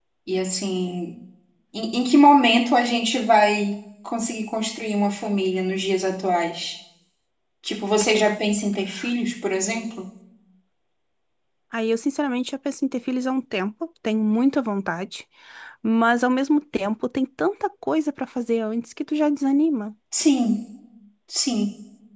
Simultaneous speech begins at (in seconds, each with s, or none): none